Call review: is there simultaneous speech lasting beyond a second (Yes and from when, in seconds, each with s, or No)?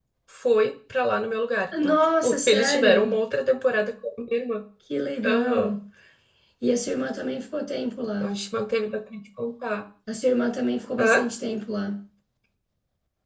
Yes, from 1.8 s